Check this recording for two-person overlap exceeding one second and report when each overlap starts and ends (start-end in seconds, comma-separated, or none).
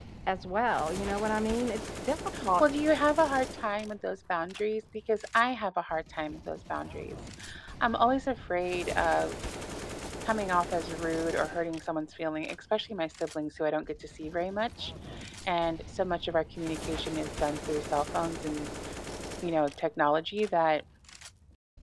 none